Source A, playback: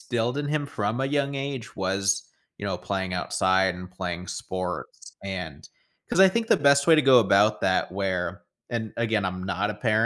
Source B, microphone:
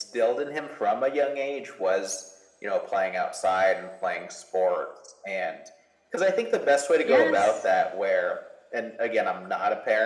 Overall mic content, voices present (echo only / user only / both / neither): both